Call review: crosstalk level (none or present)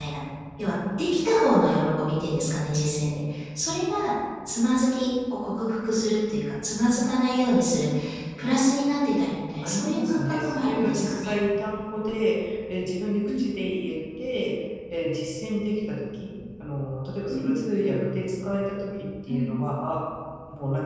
present